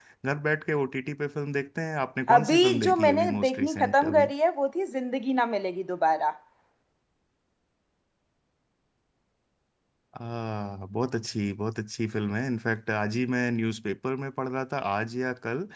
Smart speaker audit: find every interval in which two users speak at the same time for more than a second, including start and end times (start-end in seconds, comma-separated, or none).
2.3-4.3